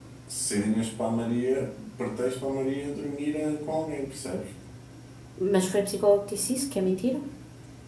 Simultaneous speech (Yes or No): No